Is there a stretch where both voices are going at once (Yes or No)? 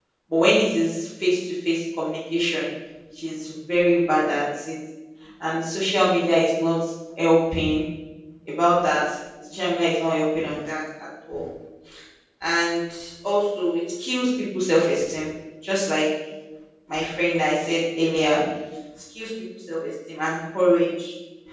No